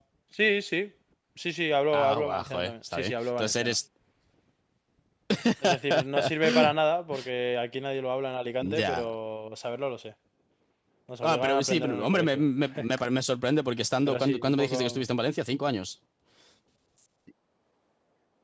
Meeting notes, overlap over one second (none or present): present